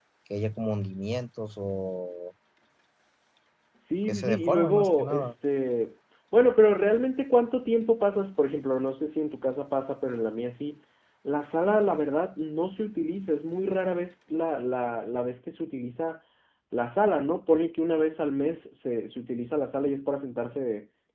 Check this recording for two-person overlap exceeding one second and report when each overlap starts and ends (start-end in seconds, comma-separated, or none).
4.1-5.3